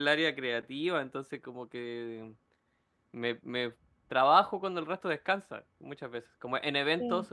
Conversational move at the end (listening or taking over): listening